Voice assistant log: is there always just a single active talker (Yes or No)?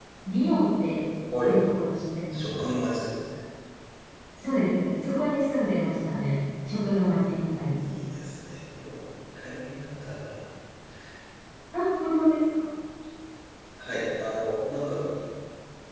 Yes